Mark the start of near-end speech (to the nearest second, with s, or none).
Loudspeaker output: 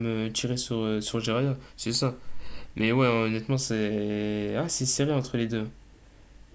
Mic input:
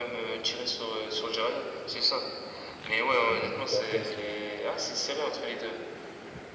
3 s